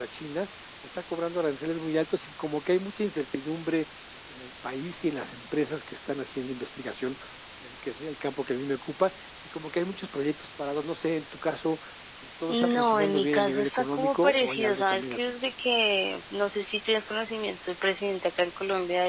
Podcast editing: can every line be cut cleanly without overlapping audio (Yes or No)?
No